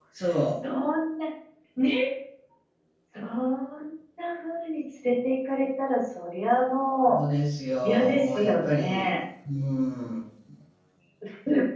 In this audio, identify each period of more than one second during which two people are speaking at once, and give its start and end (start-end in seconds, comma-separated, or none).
7.8-9.1